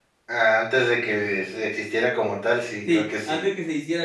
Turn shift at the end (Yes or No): Yes